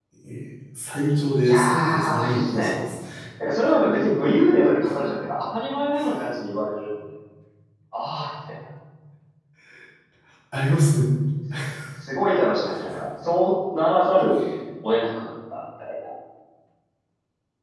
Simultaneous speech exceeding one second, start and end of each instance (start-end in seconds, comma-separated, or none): 1.4-2.7